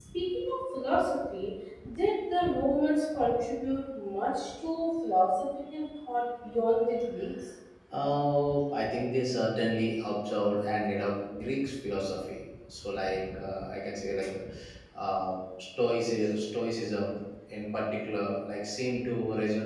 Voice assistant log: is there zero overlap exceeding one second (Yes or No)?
Yes